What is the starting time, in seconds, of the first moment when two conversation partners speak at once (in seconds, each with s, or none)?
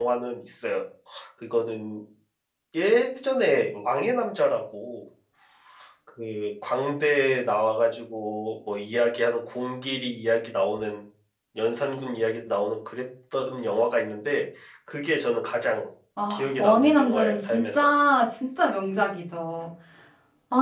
16.3 s